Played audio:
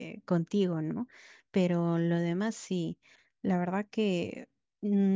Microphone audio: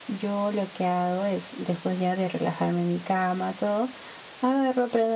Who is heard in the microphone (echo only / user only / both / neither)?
user only